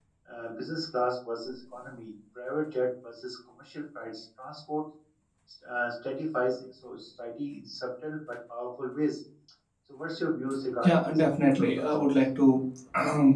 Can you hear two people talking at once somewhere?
Yes, from 10.8 s

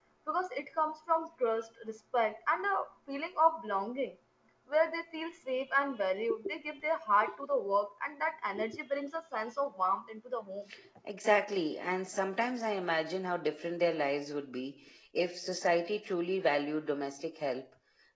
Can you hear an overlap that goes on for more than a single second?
No

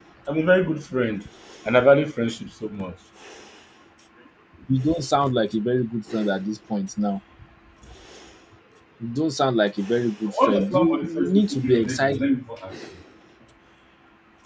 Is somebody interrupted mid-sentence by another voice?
Yes, from 10.3 s

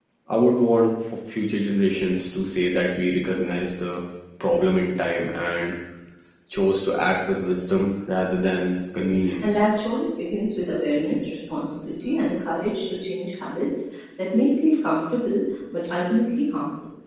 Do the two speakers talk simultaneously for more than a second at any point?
No

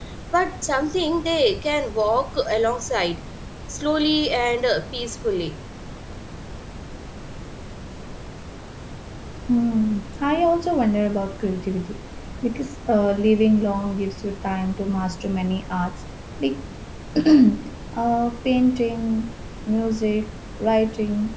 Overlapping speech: No

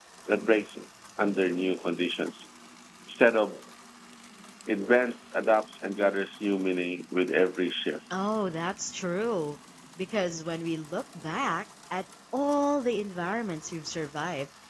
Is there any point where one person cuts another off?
No

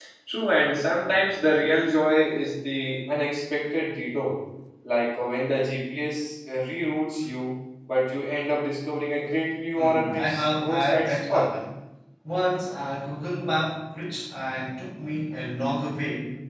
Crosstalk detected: Yes, from 9.8 s

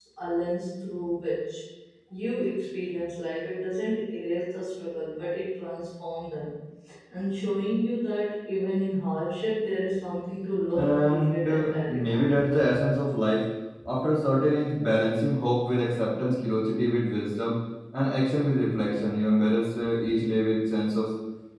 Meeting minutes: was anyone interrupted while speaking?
Yes, from 10.7 s

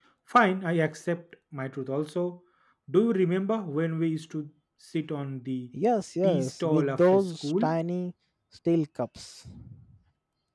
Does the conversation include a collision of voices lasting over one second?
Yes, from 6.2 s

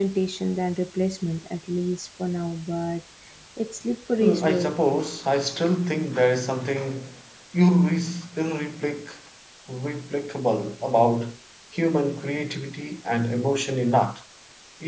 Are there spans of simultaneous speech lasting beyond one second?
No

